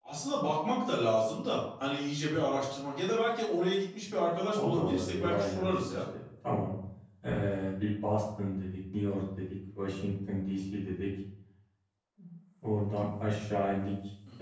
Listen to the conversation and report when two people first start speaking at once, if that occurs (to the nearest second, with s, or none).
5 s